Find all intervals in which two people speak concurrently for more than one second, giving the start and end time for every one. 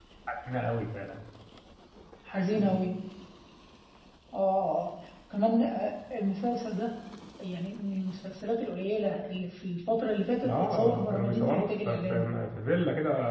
10.4-12.4

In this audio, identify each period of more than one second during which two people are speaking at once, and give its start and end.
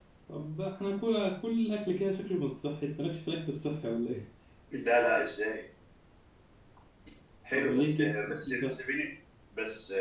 7.5-8.8

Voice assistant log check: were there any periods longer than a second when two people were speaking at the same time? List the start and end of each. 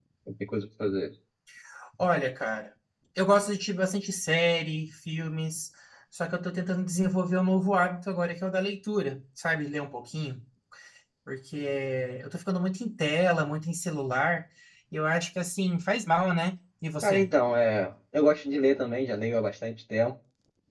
none

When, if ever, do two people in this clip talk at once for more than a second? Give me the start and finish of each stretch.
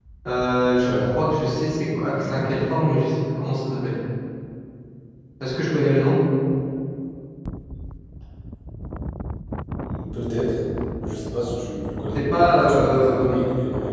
12.1-13.4

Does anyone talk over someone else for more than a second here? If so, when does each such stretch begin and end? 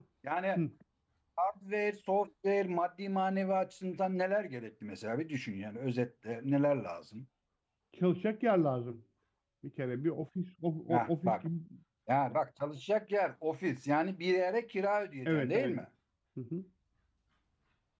none

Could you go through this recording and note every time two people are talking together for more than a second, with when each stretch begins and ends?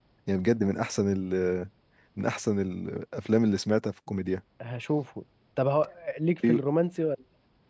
none

